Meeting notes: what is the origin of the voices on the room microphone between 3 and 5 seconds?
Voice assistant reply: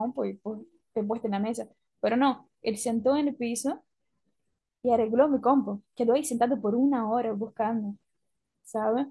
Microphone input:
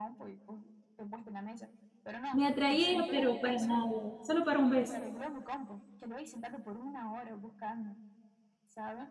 both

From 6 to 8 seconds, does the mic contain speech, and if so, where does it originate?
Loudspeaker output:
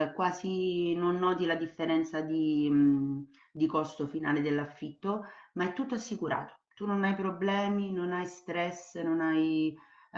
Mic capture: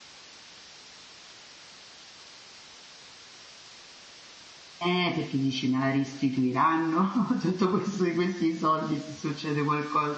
user only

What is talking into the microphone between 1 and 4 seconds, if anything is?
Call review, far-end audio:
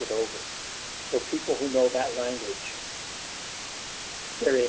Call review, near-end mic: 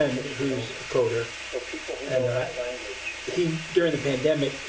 both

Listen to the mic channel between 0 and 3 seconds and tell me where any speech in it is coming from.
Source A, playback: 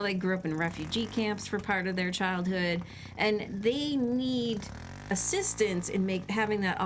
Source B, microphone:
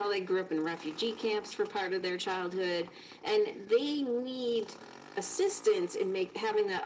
echo only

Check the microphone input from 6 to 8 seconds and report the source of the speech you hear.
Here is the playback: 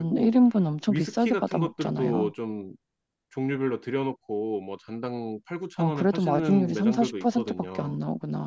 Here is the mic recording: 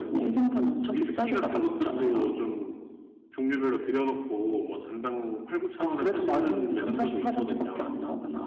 echo only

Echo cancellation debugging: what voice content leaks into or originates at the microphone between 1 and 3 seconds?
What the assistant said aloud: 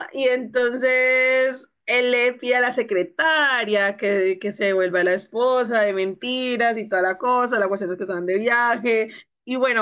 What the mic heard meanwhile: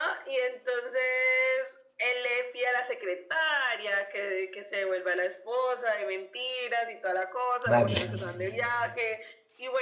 echo only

